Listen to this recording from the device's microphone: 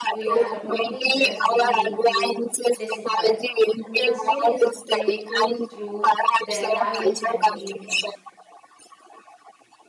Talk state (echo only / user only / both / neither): both